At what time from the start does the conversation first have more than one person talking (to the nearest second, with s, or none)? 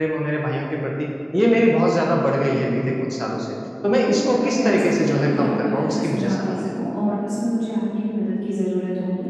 4 s